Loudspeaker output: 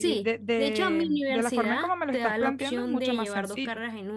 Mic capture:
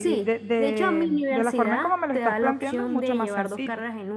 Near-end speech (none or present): none